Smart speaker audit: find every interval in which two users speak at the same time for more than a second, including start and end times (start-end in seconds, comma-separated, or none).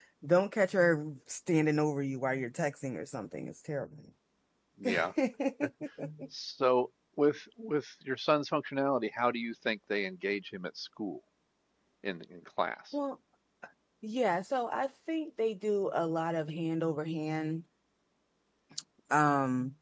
none